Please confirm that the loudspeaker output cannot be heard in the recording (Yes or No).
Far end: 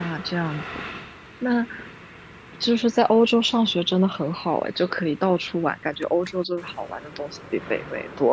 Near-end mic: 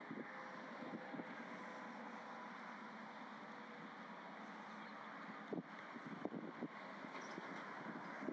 Yes